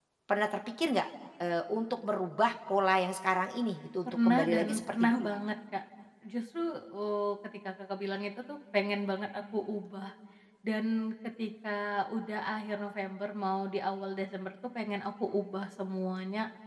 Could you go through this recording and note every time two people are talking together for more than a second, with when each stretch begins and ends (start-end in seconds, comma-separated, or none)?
4.0-5.3